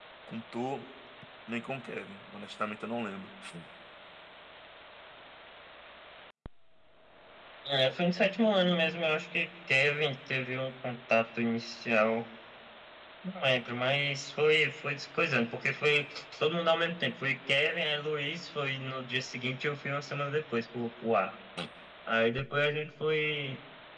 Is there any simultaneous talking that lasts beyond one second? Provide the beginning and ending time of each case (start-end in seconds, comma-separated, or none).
none